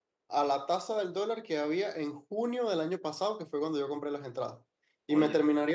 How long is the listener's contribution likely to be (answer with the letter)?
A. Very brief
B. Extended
A